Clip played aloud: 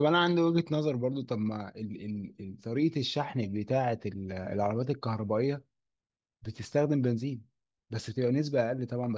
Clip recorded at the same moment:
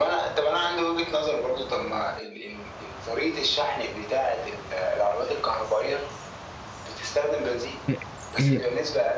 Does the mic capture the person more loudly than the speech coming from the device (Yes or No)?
Yes